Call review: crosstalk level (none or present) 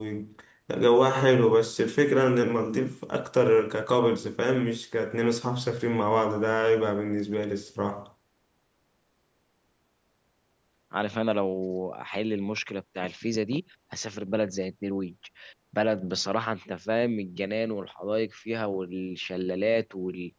none